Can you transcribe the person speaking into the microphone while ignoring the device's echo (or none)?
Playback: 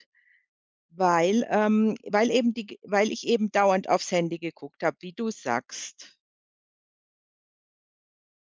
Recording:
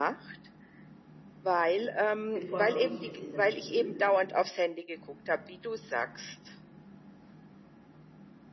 hm, bevorzuge ich es in der Früh,